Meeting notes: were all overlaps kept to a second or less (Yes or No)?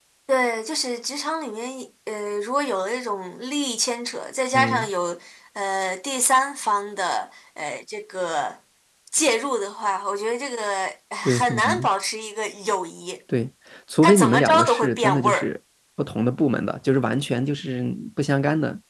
No